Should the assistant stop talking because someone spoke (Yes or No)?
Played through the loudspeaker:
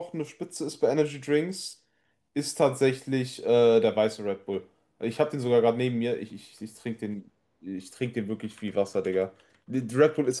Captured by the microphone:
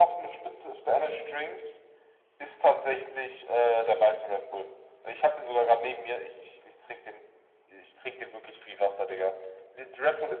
No